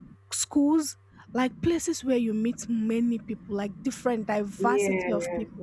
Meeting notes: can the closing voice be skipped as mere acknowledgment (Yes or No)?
Yes